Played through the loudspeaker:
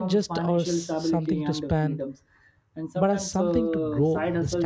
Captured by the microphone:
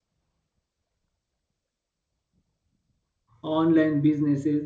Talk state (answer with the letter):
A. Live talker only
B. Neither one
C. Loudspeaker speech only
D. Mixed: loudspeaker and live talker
A